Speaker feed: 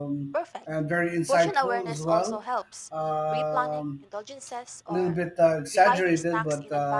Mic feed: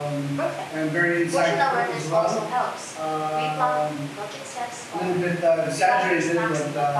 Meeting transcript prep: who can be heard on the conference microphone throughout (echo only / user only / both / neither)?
echo only